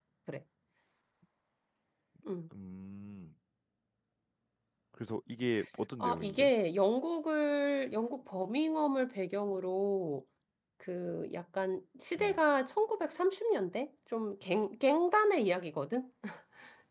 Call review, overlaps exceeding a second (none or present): none